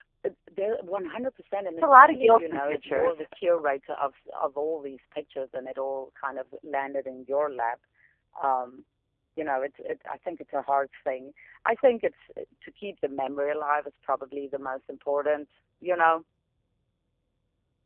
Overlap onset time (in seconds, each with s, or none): 1.7 s